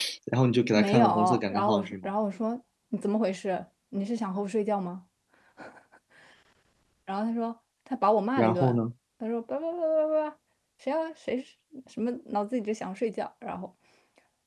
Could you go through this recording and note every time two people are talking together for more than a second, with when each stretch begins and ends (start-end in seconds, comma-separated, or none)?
0.8-2.1